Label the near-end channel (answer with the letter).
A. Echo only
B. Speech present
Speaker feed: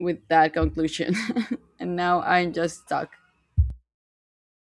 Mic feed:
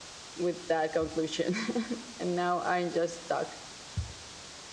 A